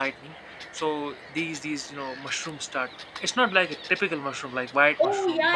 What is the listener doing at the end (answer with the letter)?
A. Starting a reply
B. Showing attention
A